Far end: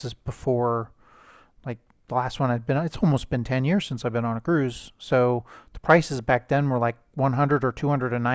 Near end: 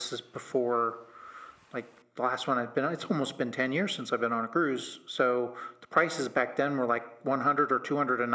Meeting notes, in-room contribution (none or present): none